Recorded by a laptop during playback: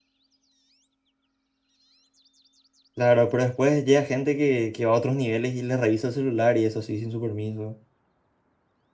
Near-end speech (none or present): present